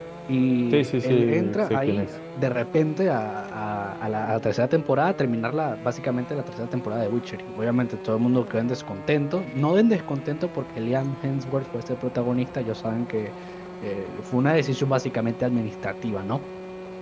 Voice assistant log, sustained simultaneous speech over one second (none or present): present